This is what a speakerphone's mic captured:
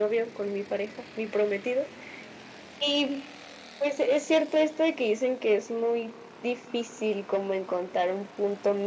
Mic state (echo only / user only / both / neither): echo only